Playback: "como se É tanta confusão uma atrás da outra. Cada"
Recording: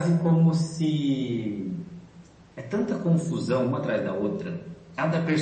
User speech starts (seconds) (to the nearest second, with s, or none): none